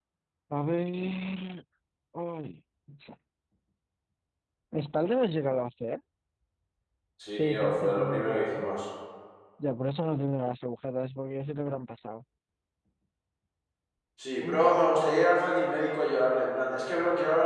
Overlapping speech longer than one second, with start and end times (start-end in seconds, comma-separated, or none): 7.3-8.7